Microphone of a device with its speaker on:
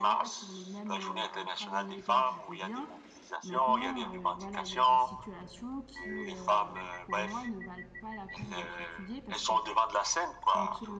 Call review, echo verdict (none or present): present